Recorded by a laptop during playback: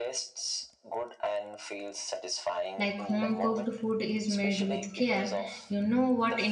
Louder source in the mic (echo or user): user